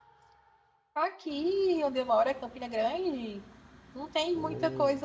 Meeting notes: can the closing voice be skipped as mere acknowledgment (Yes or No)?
Yes